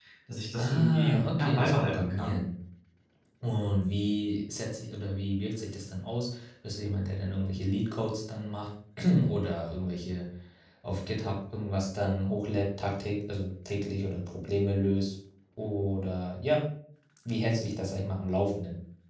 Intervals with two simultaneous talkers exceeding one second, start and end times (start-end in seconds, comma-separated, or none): 0.6-2.4